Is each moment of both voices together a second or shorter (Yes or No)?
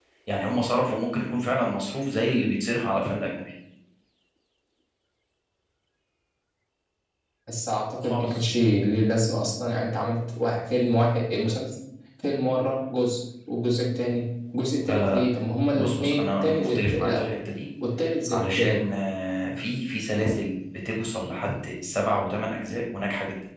No